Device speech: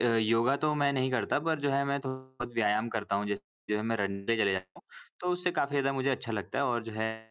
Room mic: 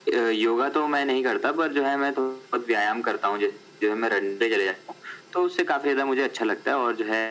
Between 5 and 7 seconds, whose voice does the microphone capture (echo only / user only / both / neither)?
echo only